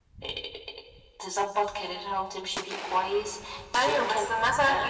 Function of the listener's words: taking over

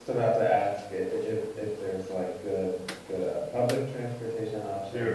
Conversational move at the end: taking over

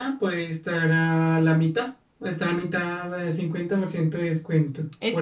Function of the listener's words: taking over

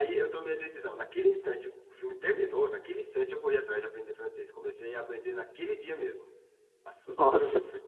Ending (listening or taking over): listening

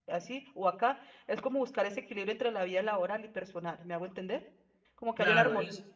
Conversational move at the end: taking over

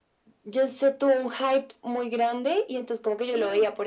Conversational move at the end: listening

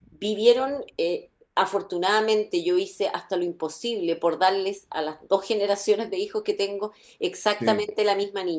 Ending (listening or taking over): listening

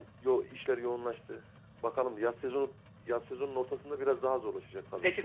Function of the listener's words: taking over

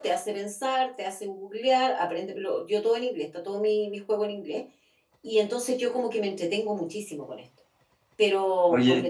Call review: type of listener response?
listening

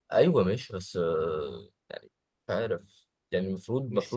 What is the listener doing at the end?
taking over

